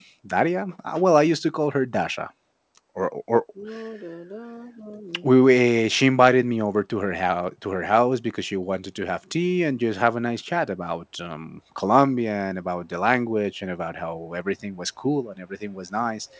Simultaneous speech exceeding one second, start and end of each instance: none

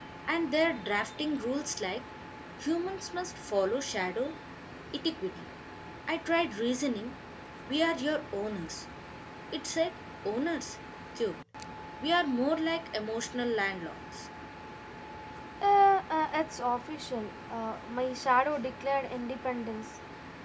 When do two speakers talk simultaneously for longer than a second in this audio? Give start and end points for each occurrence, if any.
none

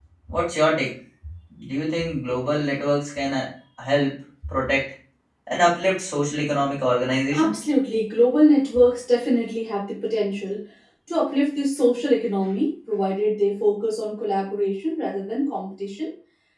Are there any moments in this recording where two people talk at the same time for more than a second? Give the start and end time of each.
none

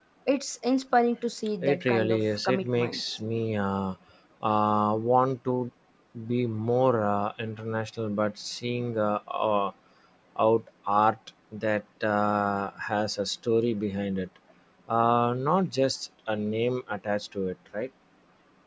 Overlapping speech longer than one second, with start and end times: 1.6-3.2

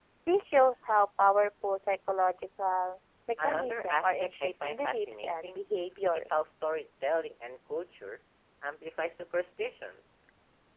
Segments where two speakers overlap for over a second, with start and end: 3.4-5.6

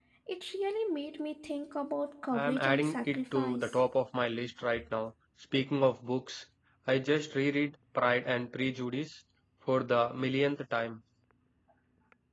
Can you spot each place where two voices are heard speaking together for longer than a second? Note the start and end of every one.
2.3-3.8

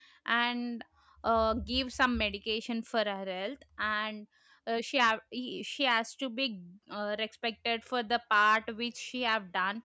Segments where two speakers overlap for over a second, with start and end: none

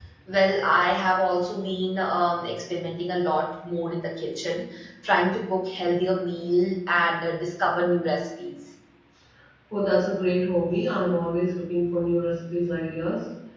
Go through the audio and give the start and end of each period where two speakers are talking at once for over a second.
none

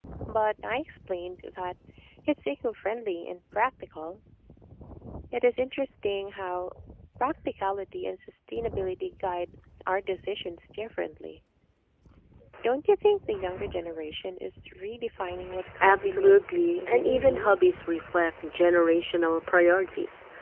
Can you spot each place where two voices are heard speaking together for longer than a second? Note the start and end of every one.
15.8-17.7

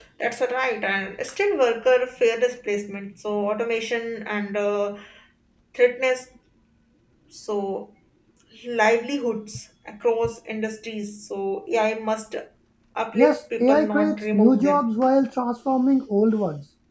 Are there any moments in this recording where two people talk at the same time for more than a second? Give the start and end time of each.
13.1-14.8

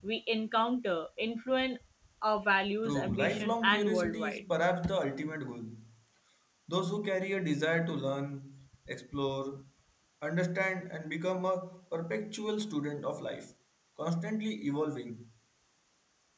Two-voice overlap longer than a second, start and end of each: 2.9-4.5

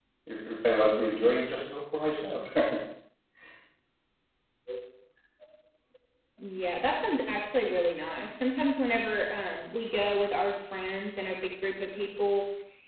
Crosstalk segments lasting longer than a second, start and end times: none

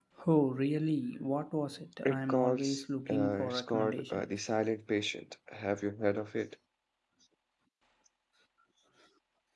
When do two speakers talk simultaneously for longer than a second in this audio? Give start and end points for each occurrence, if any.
2.0-4.2

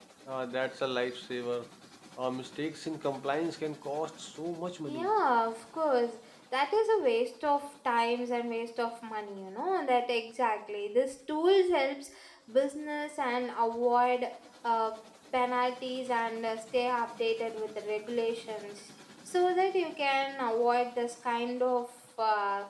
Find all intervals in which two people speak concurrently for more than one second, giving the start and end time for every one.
none

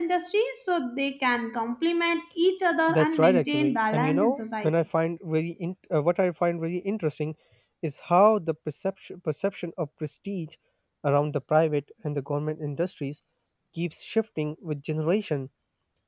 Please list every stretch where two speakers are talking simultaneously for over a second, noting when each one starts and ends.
2.9-4.7

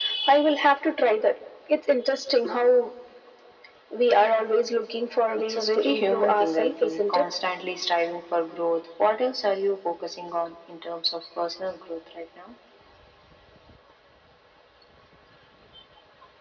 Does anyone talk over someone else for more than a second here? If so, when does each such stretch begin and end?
5.4-7.2

